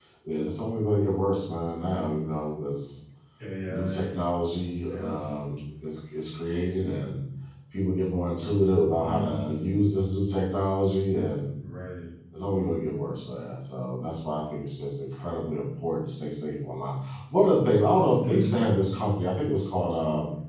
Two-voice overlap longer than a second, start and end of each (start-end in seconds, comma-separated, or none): none